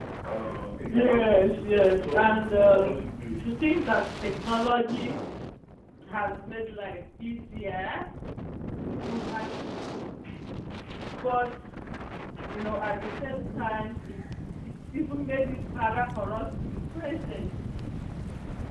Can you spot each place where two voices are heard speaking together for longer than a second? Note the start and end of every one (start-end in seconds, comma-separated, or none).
0.9-3.1